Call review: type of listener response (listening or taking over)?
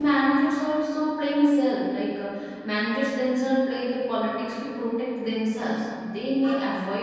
listening